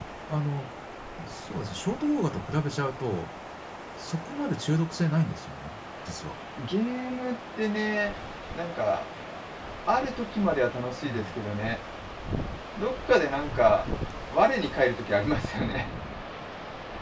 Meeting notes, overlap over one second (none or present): none